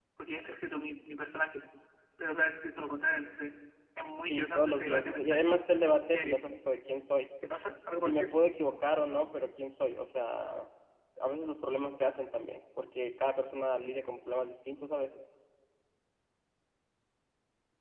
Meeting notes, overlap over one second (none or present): present